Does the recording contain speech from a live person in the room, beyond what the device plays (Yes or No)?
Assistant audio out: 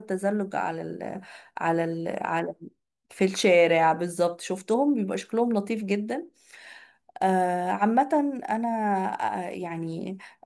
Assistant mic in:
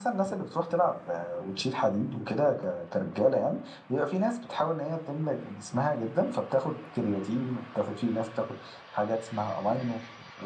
Yes